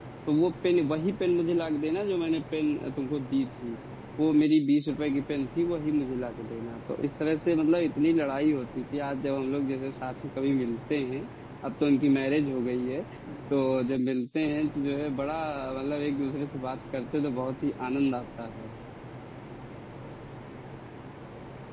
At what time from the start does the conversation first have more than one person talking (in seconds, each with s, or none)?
none